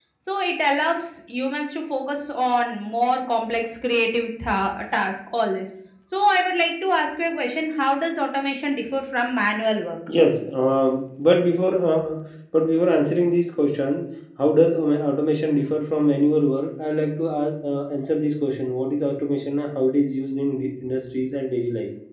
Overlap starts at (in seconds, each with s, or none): none